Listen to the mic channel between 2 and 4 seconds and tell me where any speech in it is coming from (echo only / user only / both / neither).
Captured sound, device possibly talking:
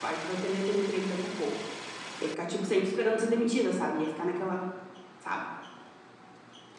user only